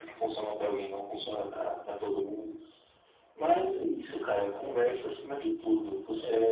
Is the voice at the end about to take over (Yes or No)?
Yes